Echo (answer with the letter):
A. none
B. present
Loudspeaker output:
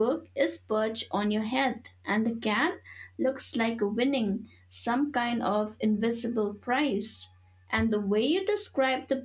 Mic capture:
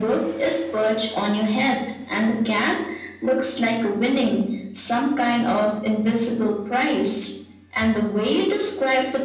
B